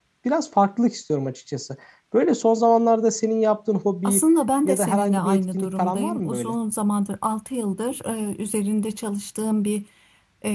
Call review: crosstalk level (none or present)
present